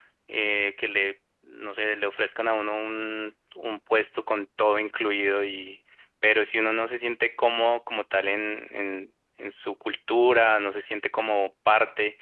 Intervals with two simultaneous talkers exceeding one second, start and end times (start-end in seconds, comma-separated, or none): none